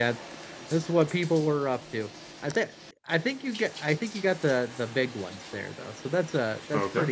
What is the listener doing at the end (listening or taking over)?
taking over